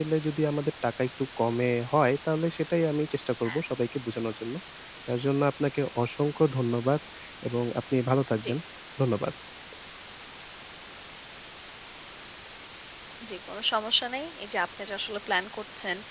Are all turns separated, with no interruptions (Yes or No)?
Yes